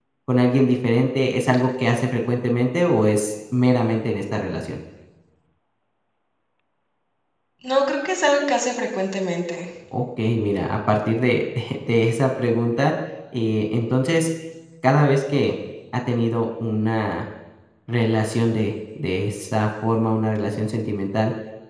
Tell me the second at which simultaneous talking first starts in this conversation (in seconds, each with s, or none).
none